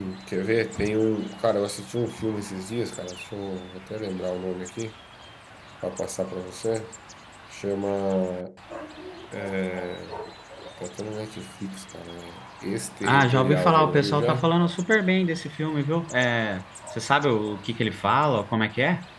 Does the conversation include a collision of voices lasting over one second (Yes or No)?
Yes